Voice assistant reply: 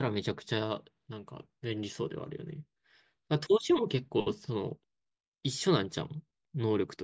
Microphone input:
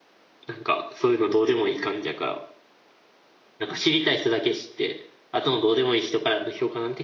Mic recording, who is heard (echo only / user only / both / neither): user only